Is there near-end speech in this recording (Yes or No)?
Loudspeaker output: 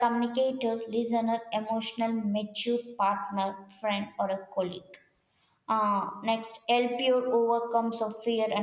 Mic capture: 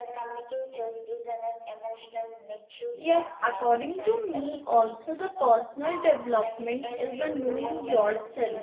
Yes